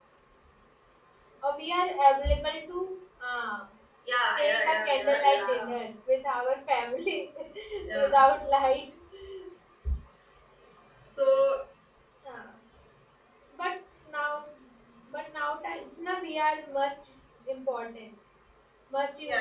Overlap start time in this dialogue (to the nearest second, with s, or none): 4 s